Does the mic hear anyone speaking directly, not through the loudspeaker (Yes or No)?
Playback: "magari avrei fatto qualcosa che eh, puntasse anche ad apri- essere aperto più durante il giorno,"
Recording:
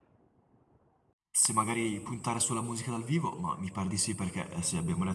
Yes